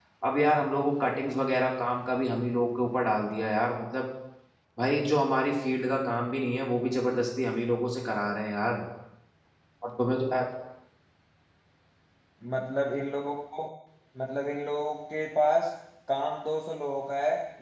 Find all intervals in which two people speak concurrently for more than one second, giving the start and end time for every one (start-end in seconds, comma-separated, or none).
none